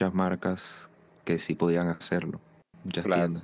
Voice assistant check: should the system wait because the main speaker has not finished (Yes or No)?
No